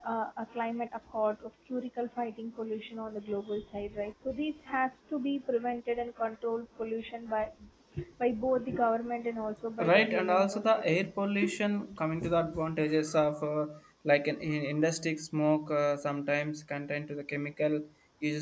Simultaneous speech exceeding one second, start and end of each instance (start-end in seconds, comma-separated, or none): 9.8-11.0